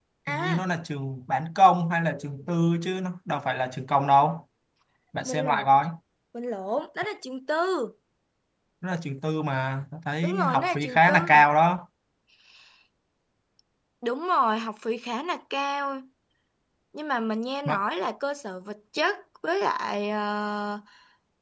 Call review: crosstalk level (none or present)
present